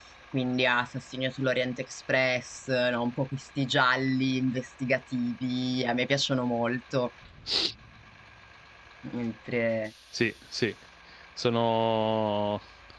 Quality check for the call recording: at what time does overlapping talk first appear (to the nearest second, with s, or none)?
none